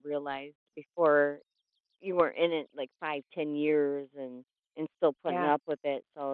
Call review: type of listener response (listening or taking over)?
listening